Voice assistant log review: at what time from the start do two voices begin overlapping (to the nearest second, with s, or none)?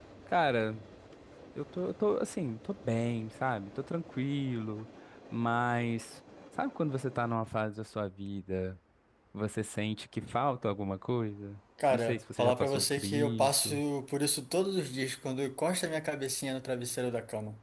12 s